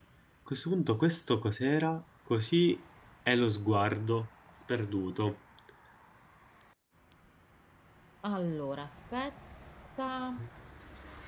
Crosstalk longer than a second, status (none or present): none